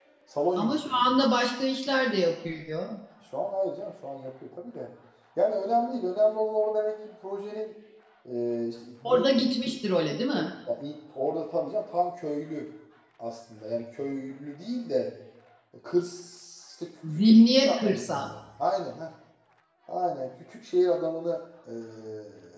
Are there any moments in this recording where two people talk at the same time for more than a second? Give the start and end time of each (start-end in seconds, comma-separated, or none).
17.1-18.3